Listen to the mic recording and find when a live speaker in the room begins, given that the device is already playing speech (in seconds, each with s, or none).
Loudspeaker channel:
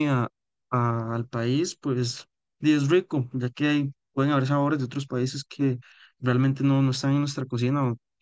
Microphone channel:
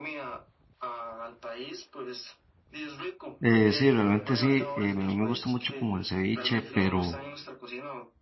3.4 s